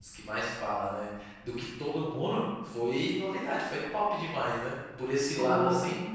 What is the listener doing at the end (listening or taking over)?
listening